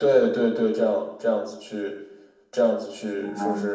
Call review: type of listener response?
listening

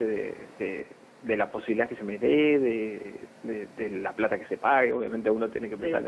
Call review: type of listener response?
listening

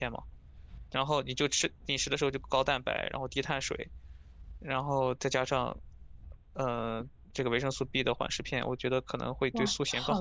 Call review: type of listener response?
taking over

